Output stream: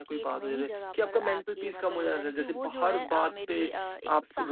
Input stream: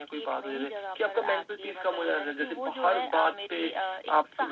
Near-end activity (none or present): none